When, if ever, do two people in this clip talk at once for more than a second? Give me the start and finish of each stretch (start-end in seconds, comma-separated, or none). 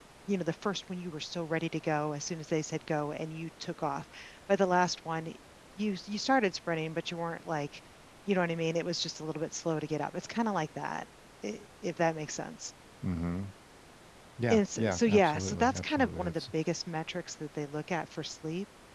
14.5-16.4